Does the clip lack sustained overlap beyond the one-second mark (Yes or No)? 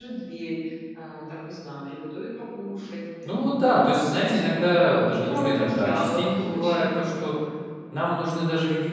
No